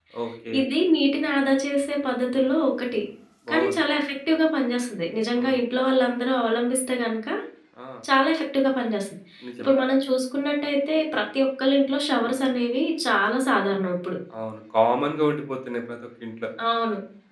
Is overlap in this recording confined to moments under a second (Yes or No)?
Yes